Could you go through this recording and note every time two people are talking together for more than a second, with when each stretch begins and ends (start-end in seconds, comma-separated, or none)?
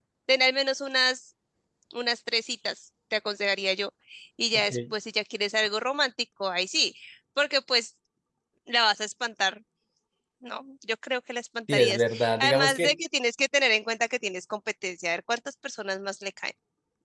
11.7-13.0